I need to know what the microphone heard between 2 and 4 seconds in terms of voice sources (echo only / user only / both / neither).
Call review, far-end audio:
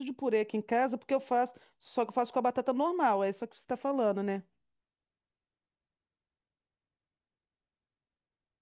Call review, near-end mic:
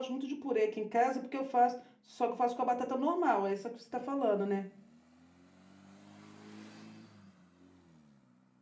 echo only